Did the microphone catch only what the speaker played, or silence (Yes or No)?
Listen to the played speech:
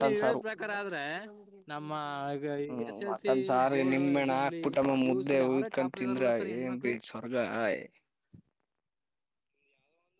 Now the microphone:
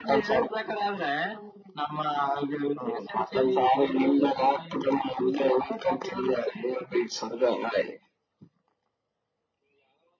Yes